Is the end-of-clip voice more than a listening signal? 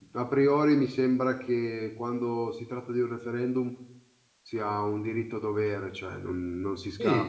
Yes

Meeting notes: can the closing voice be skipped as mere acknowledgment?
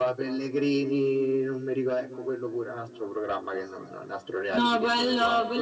No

